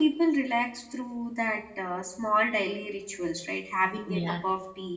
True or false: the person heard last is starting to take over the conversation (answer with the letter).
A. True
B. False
B